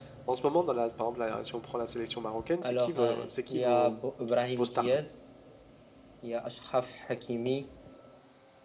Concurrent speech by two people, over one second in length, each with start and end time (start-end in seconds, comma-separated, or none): 2.6-4.0